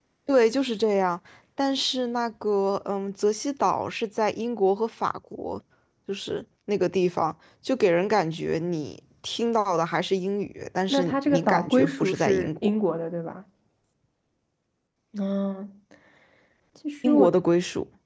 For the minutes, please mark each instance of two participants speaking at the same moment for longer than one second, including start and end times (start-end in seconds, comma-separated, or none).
10.9-12.7